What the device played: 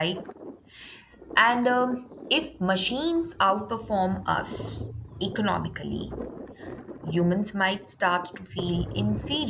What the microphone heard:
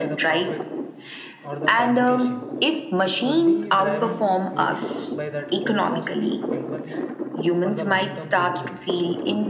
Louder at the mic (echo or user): echo